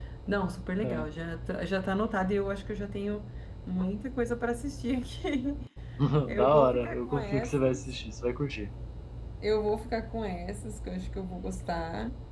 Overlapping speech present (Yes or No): Yes